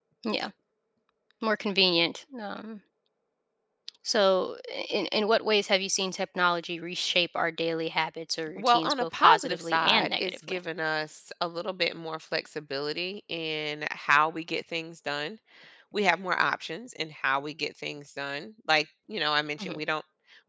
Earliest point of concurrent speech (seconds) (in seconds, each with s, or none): 8.6 s